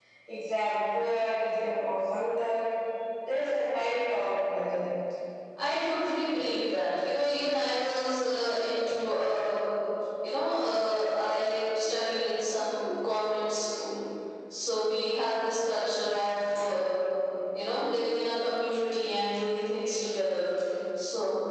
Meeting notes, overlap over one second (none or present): none